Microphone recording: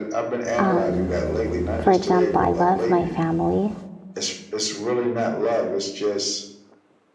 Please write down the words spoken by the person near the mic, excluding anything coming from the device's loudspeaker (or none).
Um, for example, I love my family,